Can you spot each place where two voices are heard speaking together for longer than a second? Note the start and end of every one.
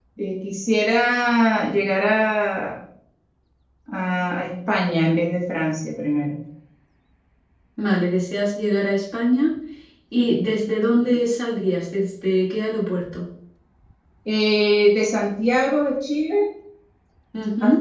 none

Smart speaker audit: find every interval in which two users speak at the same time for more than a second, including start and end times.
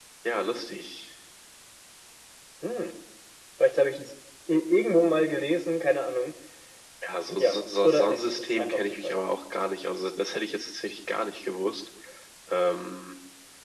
7.4-9.2

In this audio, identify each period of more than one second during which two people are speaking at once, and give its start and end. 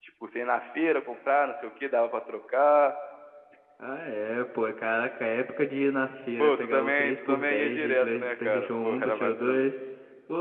6.4-9.6

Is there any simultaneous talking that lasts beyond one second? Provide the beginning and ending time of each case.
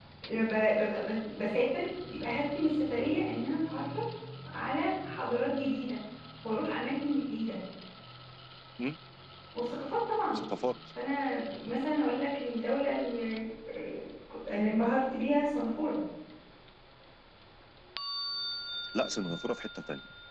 none

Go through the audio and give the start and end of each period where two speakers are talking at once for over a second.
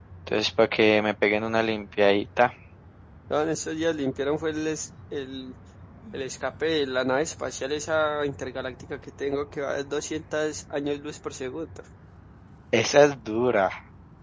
none

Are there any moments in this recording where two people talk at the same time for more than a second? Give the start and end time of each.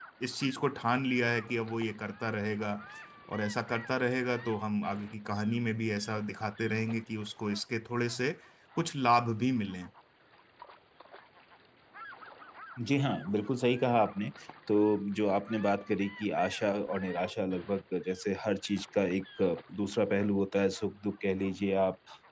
none

